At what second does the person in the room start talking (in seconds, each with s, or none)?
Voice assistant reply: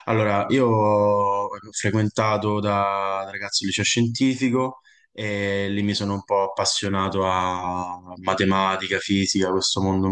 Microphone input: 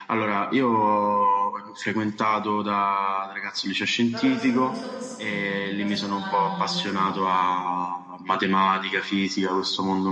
4.0 s